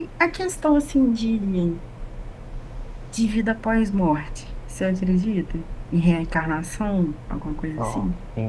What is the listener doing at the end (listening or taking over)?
taking over